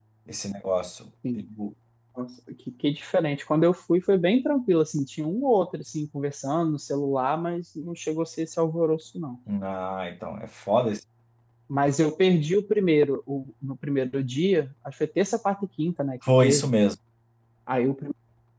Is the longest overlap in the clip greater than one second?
No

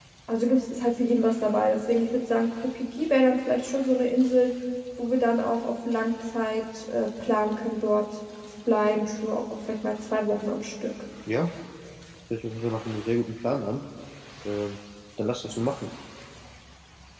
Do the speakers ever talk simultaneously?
No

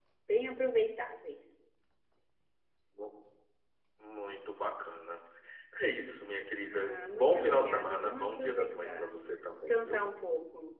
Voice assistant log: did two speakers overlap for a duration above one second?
Yes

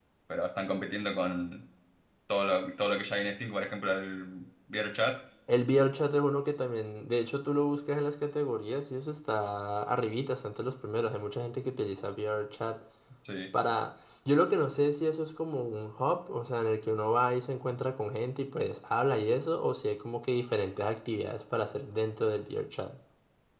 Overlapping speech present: No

